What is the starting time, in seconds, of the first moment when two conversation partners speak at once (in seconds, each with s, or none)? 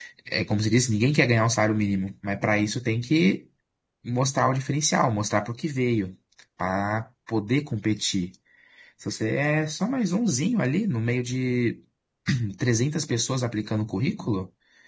none